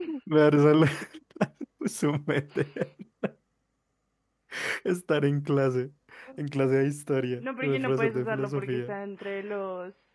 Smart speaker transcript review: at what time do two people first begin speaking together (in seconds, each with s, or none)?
7.4 s